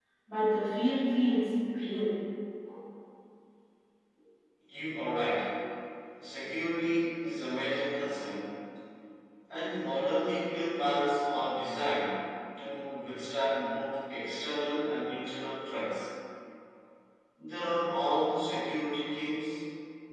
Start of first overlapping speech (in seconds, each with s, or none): none